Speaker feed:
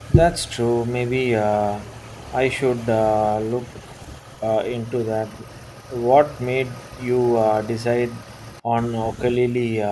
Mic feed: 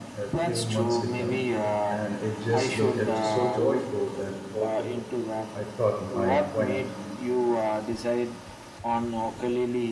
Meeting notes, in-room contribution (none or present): present